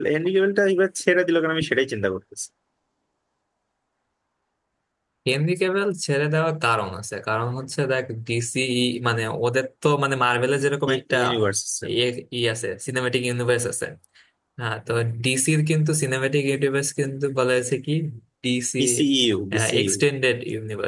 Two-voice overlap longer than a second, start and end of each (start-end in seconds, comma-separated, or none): none